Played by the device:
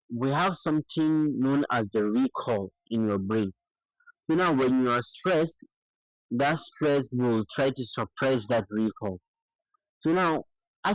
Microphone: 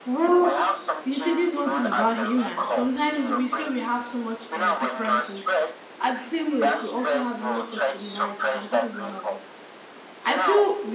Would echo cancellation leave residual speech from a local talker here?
Yes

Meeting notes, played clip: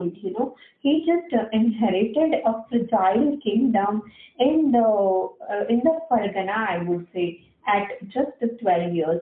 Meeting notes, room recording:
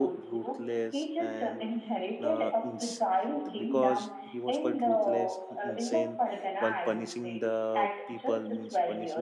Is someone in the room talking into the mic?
Yes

